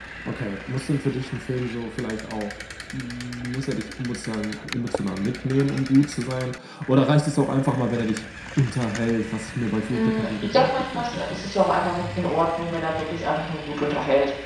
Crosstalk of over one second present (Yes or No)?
Yes